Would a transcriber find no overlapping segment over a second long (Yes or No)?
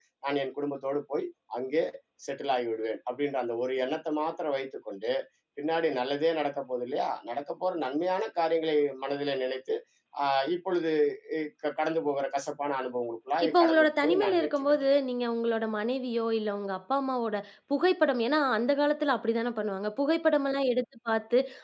No